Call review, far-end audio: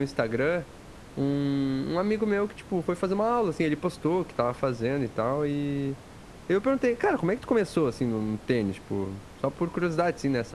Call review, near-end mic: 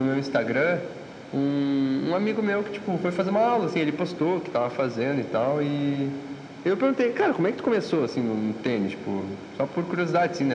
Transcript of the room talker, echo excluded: none

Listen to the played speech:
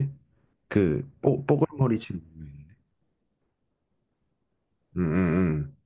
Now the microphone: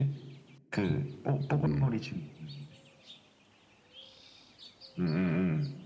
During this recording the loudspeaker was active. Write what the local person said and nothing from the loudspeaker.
음, 음.

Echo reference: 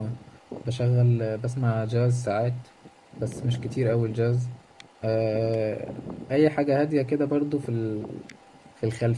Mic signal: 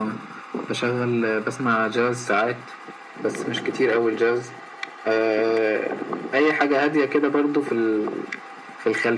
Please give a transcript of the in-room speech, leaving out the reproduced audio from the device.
none

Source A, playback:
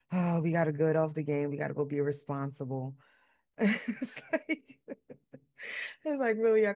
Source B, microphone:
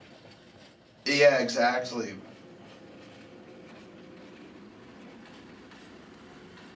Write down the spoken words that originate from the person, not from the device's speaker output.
Yeah, exactly.

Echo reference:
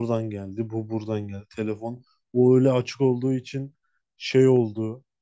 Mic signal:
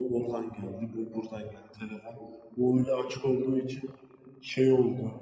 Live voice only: none

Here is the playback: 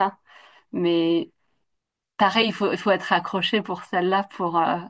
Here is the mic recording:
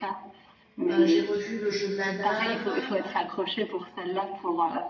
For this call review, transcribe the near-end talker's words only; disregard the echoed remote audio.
Heu, j'ai revu Le Jeu de la Dame,

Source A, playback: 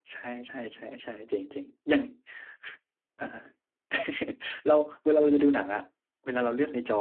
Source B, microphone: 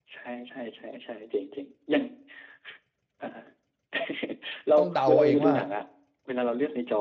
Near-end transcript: ต้องเดาเองว่า

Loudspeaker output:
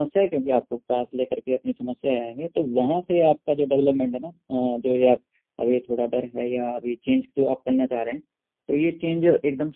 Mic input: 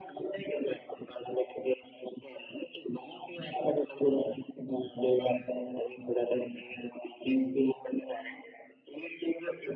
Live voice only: none

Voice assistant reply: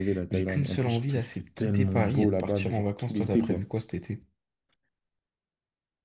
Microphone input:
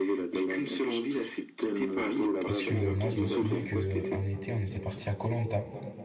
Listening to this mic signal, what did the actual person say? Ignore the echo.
parce que euh, moi, je me souviens que euh, un été, on était parti à koh Lanta.

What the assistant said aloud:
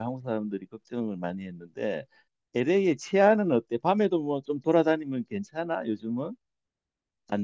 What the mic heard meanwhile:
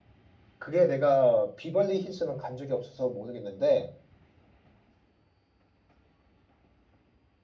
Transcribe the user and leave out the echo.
그게 내가 비벌리 힐스는 간 적이 없어서 모르겠는데,

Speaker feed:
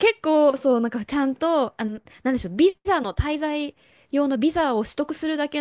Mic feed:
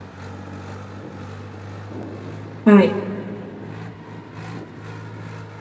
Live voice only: はい。

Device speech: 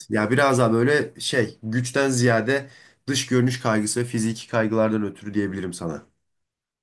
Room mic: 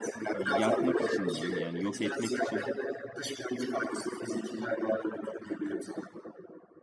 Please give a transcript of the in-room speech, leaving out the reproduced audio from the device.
yakmak için diyeyim yani yok etmek için

